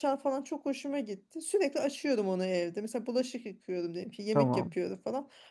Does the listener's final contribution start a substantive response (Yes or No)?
No